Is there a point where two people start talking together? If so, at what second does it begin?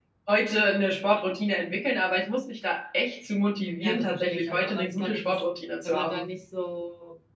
3.8 s

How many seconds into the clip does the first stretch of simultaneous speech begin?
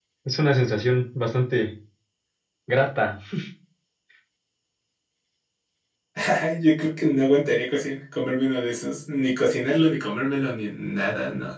none

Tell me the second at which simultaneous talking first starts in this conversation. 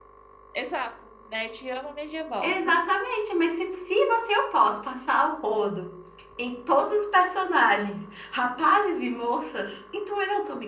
none

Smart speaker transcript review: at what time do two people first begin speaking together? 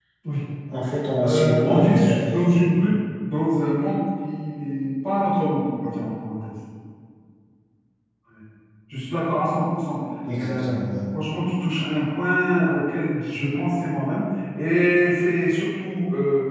1.2 s

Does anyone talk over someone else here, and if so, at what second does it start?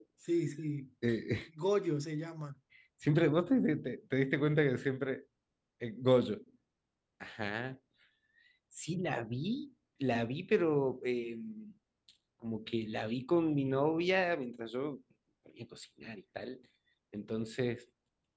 none

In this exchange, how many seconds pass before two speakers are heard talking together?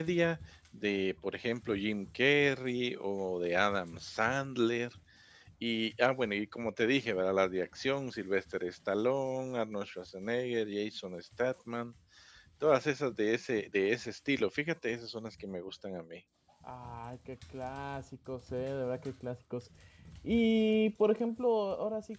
none

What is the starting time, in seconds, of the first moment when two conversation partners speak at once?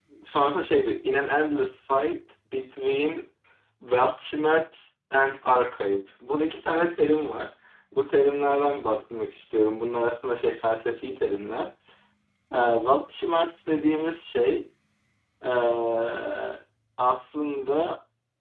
none

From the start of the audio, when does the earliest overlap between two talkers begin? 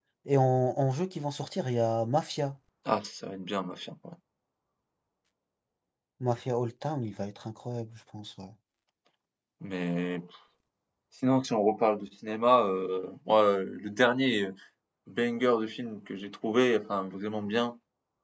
none

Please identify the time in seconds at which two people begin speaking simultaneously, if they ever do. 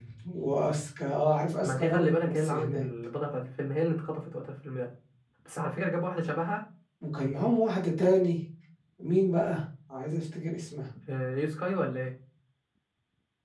1.6 s

